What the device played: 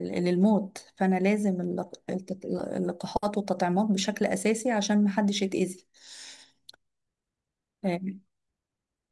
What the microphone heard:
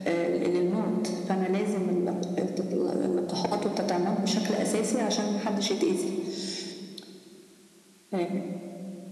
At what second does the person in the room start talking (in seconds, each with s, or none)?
none